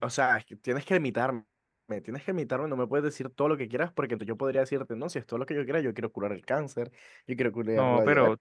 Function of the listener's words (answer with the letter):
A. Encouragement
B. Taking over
B